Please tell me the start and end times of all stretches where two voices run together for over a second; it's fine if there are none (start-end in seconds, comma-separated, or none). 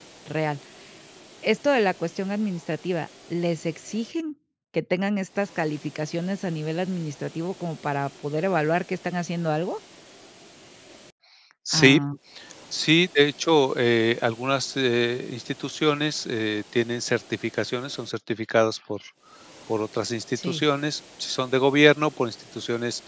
none